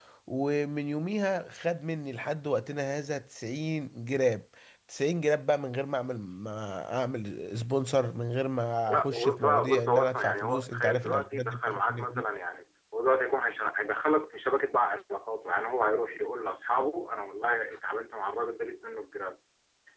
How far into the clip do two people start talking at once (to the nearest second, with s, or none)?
9 s